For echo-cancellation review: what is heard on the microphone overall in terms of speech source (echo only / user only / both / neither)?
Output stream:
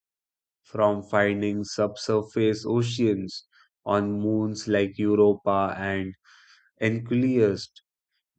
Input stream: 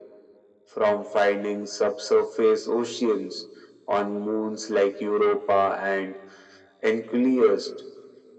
echo only